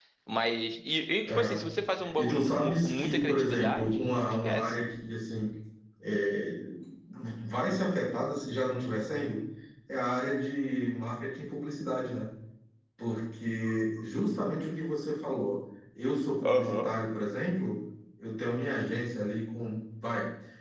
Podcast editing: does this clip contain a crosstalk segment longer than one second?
Yes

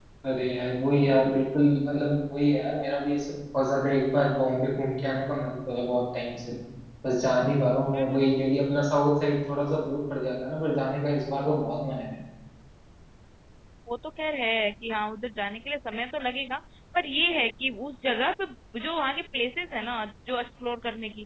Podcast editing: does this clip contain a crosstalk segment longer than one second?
No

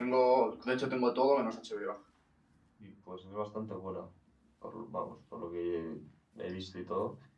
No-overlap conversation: Yes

